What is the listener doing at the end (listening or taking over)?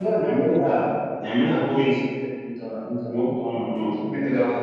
taking over